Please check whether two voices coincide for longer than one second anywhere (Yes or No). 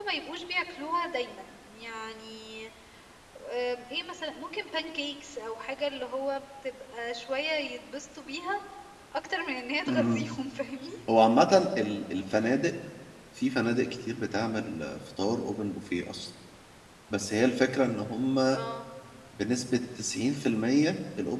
No